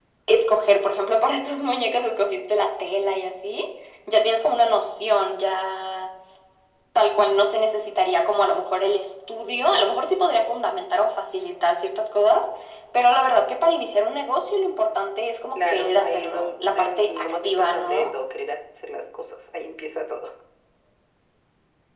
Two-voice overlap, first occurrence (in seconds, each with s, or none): 15.6 s